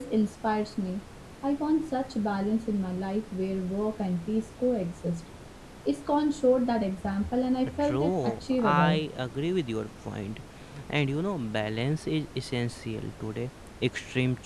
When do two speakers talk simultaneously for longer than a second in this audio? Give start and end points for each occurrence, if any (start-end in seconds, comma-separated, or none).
7.8-9.0